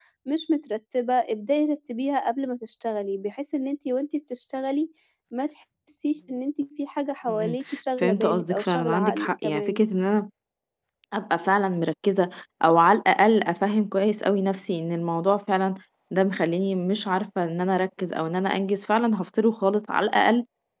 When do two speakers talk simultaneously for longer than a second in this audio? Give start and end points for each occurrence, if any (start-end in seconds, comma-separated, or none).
8.0-9.8